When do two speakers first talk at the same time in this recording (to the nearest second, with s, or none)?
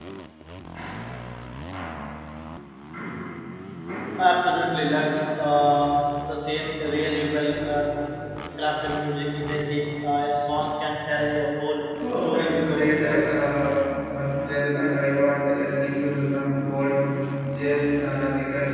12 s